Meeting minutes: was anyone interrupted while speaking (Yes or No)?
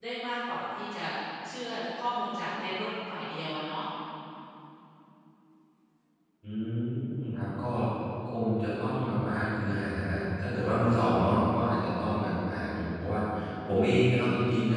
No